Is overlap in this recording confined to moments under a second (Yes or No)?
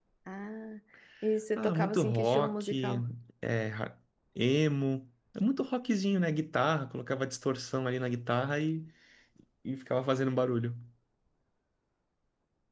No